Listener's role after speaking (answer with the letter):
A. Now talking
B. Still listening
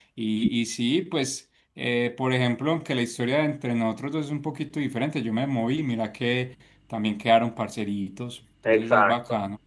A